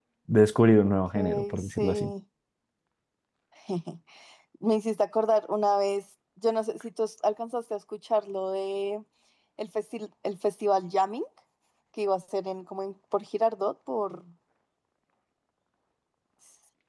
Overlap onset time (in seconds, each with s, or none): 0.9 s